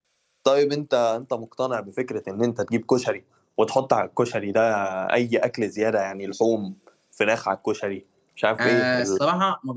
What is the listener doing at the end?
taking over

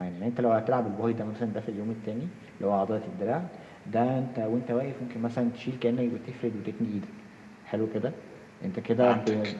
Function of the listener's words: listening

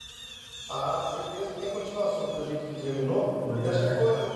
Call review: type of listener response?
listening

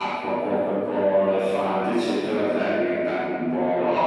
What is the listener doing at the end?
taking over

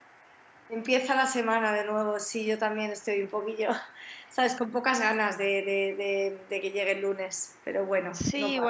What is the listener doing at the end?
taking over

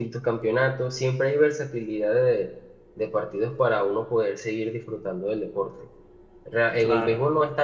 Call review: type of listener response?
listening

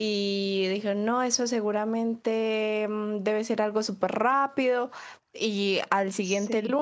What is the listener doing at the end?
listening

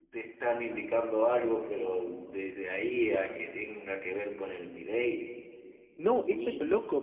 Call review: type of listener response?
taking over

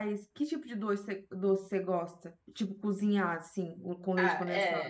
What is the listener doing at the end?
taking over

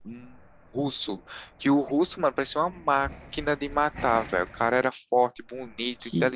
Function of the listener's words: taking over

